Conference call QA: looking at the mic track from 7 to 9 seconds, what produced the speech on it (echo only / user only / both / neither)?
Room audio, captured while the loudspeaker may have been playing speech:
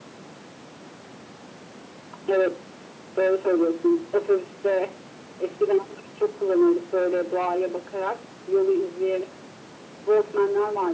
echo only